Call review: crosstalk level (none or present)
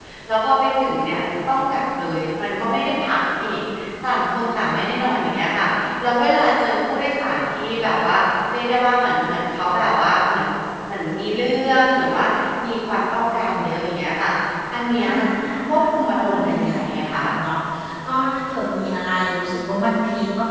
present